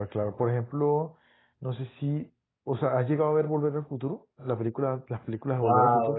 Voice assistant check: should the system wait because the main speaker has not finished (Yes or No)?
No